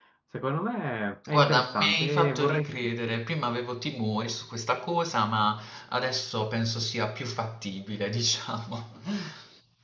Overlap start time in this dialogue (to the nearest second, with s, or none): 1 s